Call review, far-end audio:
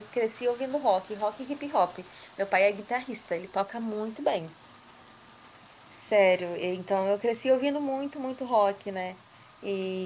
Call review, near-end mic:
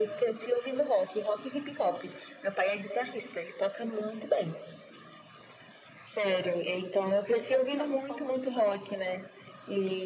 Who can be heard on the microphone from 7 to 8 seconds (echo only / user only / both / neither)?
both